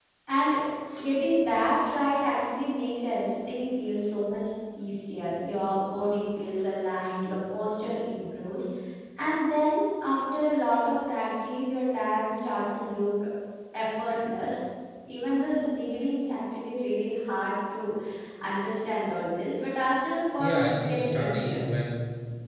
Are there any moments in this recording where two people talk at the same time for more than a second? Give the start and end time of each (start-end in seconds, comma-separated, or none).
20.4-21.6